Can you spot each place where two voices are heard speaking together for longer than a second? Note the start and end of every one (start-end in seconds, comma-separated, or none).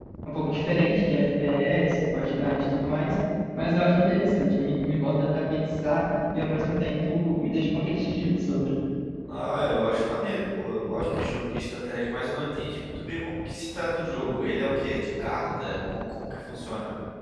none